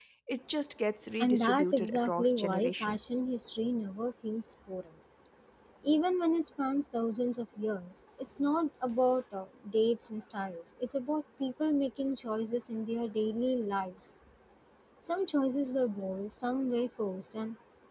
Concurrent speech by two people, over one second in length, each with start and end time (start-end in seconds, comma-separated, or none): 1.2-3.2